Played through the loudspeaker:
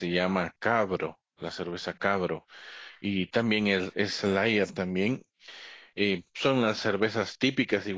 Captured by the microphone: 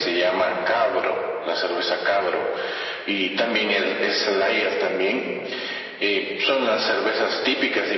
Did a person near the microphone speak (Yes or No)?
No